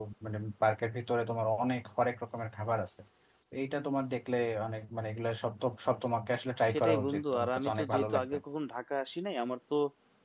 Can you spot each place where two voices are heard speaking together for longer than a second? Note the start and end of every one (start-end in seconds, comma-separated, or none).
6.7-8.4